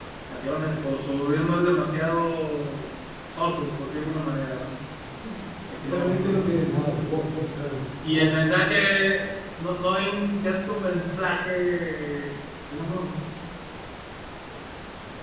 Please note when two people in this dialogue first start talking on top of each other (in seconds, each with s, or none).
5.8 s